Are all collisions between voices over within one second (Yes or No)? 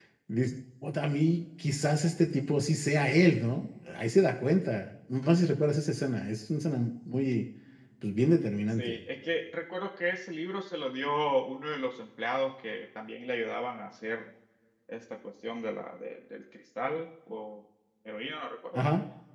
Yes